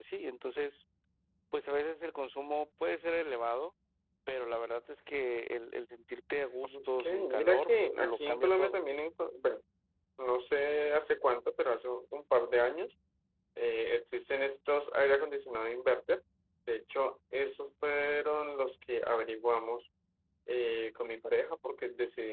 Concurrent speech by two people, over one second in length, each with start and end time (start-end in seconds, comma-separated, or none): 6.7-8.8